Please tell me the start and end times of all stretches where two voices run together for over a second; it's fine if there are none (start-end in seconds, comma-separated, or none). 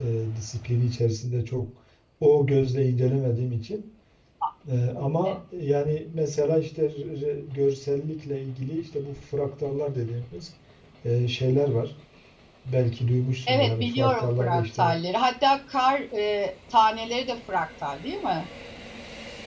13.5-14.9